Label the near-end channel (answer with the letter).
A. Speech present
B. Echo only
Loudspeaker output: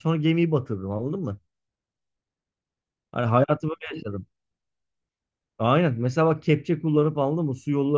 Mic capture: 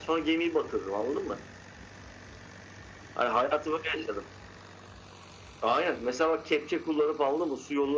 B